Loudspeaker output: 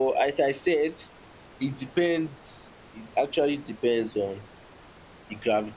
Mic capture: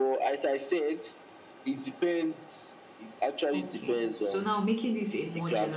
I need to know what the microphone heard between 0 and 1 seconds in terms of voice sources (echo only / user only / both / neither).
echo only